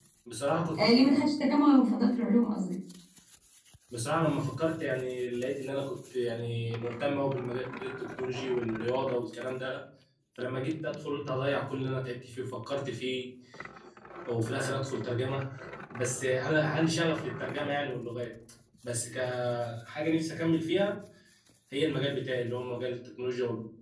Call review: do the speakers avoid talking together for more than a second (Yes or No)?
Yes